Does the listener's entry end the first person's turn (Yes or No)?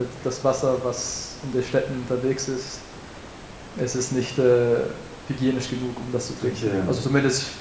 No